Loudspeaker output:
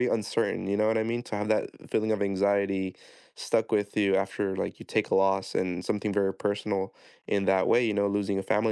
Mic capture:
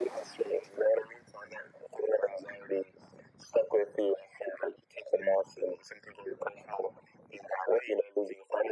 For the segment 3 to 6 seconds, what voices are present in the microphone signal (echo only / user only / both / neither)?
echo only